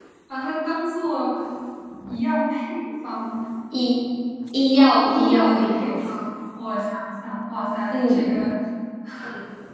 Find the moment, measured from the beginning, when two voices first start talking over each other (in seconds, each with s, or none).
4.8 s